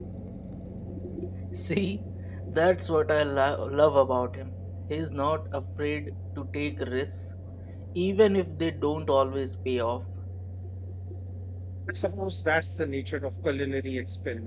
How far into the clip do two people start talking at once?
none

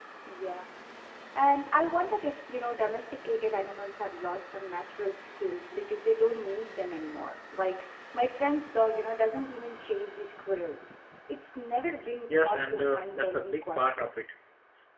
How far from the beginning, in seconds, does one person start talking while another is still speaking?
12 s

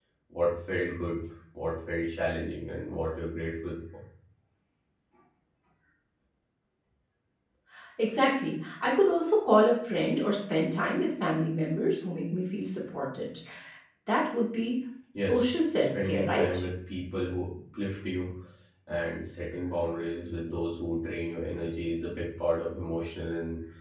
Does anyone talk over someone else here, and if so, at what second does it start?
15 s

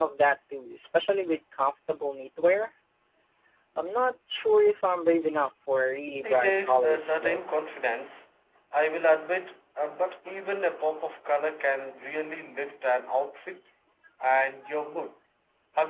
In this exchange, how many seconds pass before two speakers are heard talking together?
6 s

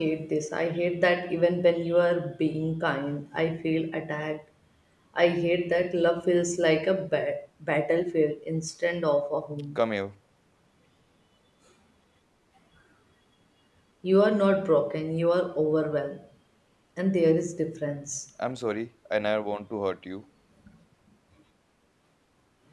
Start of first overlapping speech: none

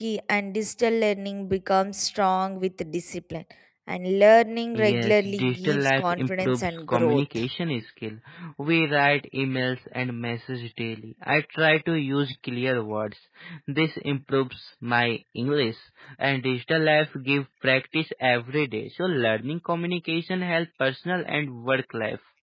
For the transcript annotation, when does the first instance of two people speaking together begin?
5 s

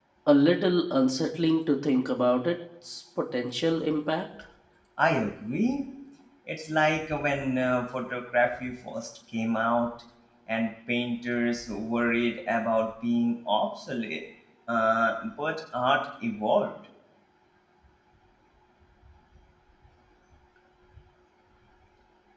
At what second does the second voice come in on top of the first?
none

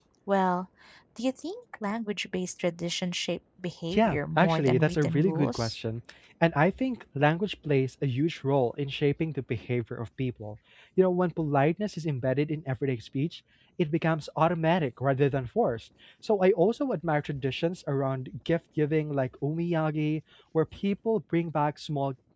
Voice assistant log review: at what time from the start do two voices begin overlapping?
4 s

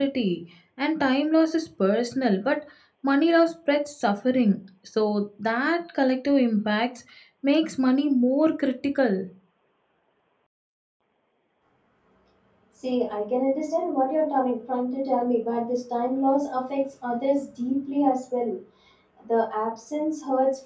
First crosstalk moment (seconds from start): none

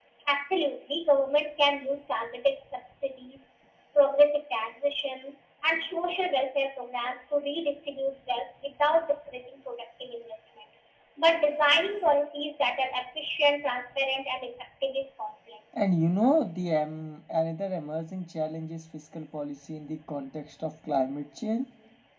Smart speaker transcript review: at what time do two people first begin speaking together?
none

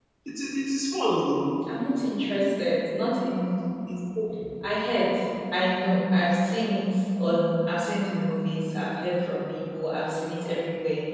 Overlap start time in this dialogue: none

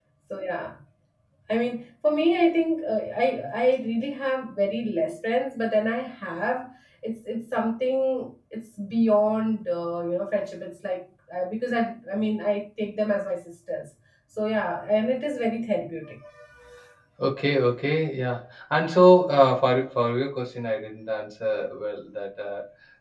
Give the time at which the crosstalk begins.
none

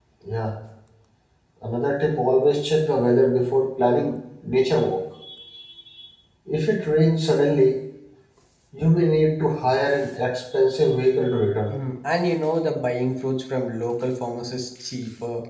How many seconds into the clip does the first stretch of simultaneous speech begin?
none

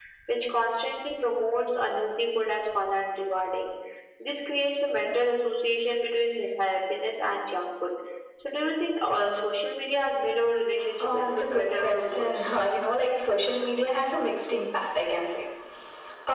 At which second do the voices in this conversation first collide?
11 s

